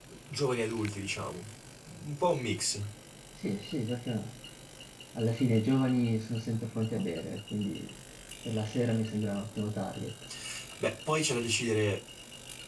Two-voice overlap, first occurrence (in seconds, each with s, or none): none